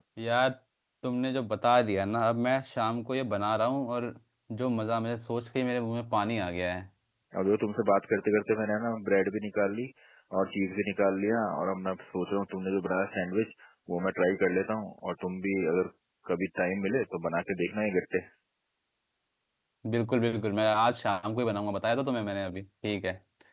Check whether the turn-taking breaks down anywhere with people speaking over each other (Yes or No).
No